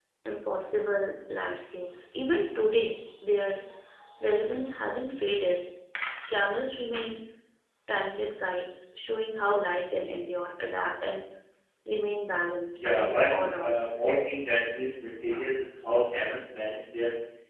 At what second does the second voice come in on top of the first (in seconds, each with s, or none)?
12.8 s